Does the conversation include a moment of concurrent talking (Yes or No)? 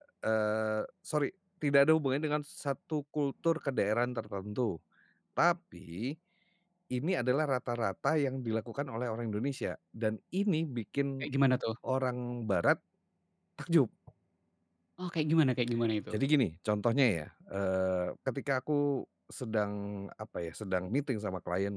No